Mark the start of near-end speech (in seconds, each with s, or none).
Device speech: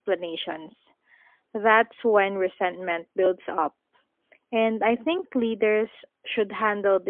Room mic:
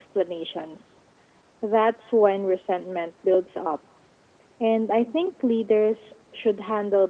none